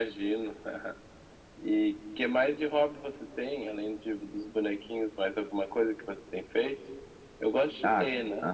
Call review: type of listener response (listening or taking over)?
taking over